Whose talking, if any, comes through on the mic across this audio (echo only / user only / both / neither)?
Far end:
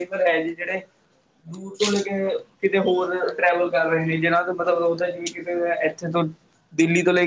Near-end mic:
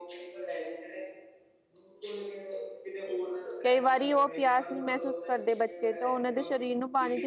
both